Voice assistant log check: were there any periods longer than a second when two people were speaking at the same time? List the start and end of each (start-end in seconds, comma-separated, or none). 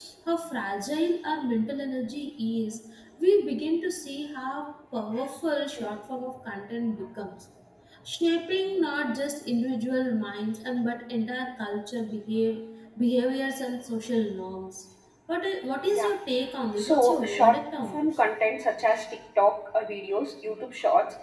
16.8-18.1